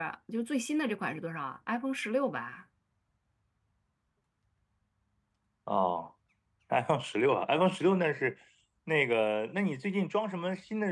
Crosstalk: none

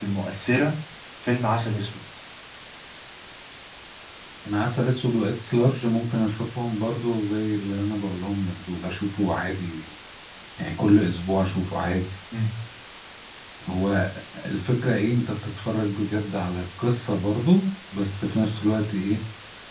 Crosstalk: none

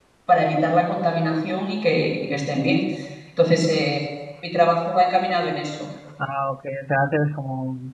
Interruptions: none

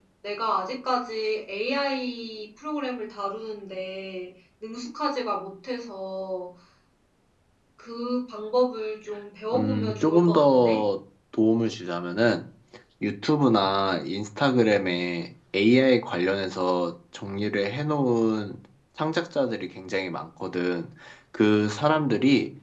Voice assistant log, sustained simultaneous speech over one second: present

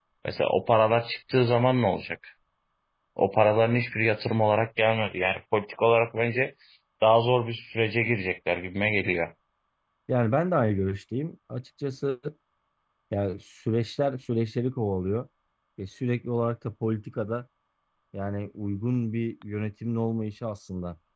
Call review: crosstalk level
none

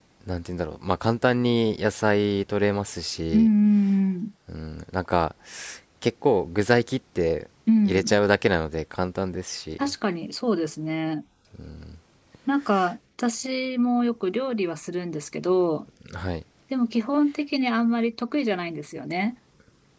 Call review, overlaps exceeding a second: none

